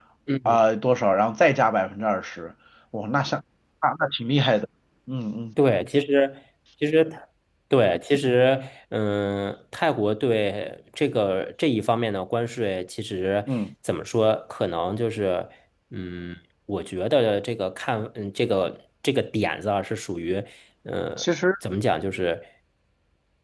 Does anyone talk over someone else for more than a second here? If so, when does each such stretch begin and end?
none

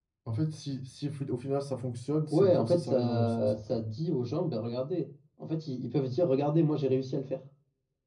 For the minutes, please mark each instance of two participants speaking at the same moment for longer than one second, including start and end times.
2.3-3.8

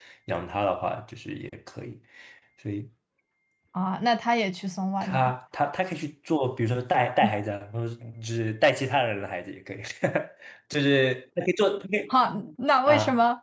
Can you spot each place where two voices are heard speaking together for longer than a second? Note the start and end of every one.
none

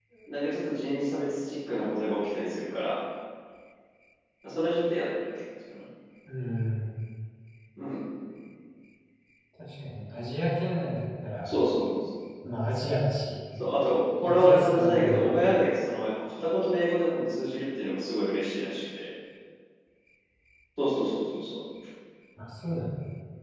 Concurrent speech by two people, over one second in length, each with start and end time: 14.2-15.4

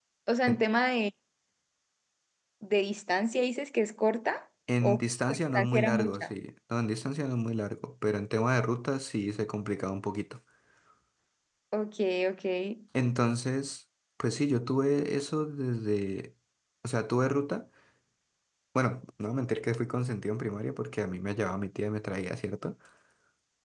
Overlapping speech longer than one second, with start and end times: 4.8-6.3

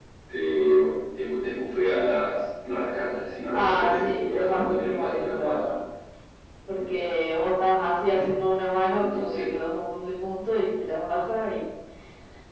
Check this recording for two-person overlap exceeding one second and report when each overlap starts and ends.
3.5-5.6

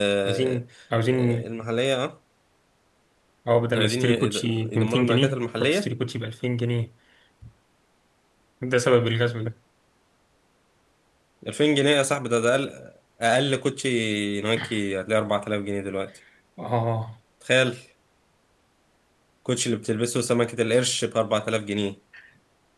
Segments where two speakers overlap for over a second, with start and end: 3.8-5.9

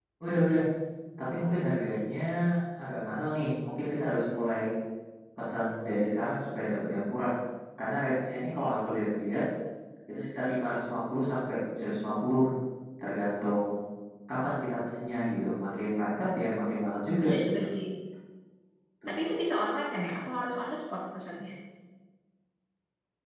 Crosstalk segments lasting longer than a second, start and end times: none

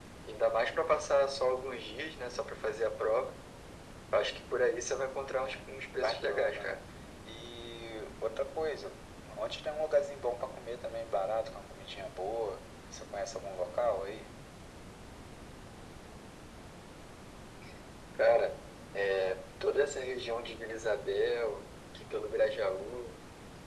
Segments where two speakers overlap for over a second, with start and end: 5.3-6.7

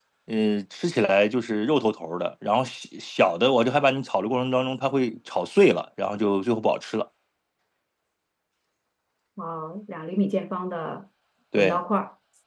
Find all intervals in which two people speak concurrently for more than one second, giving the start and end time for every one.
none

